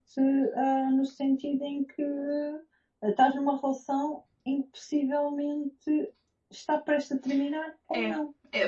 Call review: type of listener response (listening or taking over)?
taking over